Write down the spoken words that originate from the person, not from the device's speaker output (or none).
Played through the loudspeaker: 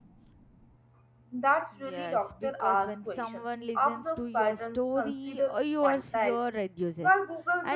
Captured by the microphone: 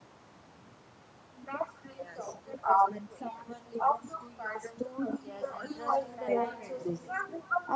Yes, and trusting the right source is